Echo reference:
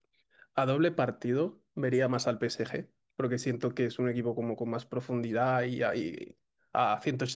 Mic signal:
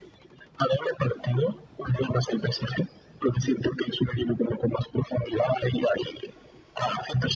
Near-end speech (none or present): none